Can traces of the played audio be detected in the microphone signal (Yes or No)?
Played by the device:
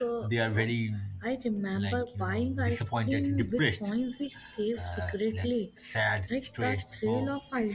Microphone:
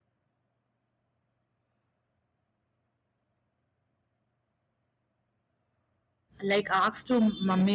No